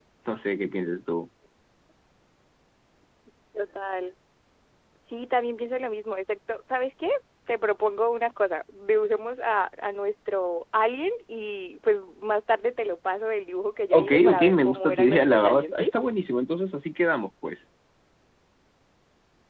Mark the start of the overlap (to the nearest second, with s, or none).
14 s